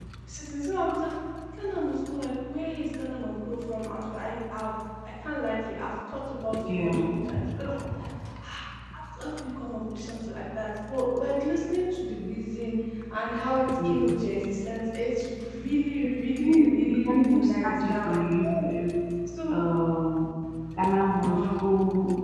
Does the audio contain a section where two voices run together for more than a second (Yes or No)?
Yes